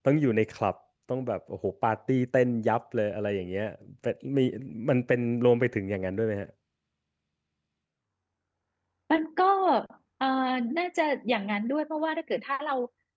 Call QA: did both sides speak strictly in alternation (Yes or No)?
Yes